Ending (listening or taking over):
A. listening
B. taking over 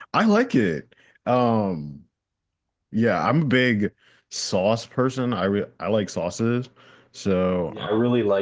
B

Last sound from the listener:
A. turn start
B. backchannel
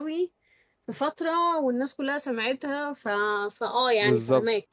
A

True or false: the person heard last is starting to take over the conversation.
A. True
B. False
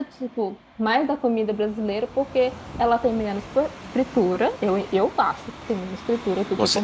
B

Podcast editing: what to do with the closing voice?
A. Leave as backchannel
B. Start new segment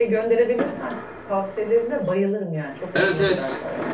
B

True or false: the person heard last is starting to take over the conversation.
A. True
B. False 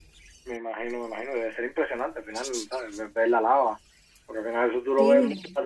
B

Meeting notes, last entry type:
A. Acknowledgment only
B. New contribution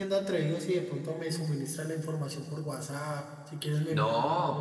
B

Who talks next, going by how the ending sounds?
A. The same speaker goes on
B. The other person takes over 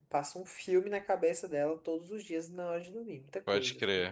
B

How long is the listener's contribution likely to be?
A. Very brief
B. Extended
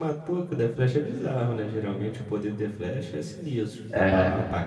A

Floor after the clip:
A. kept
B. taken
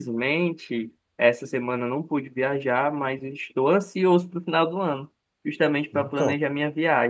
A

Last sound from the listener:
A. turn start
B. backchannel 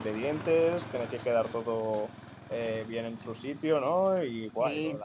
B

